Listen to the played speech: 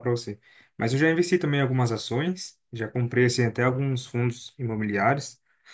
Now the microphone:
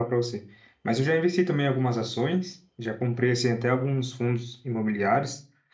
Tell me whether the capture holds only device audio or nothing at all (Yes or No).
Yes